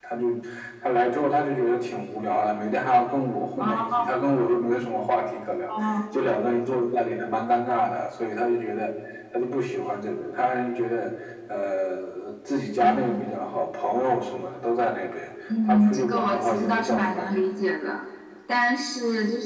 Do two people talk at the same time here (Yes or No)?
Yes